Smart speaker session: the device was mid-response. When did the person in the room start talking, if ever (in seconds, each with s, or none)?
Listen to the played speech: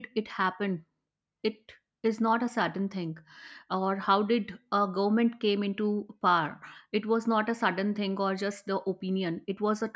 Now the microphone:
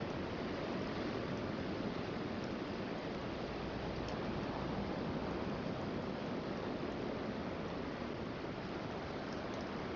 none